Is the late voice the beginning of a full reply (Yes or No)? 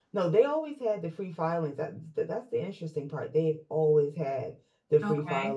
No